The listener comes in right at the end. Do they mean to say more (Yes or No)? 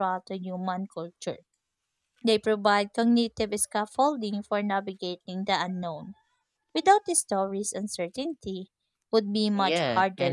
Yes